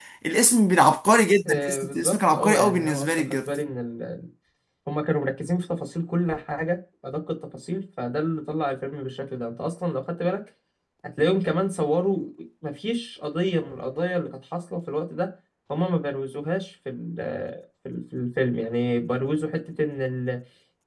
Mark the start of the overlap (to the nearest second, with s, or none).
1 s